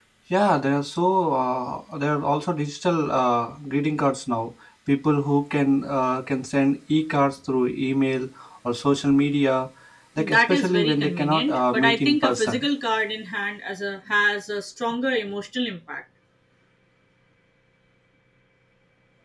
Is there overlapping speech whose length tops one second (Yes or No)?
Yes